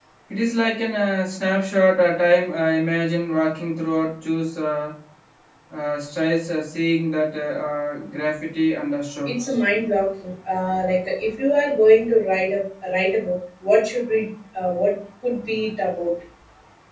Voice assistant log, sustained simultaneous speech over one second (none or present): none